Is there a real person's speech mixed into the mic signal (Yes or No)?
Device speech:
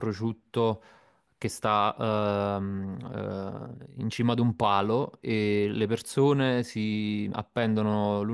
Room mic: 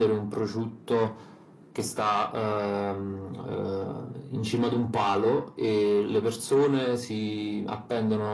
No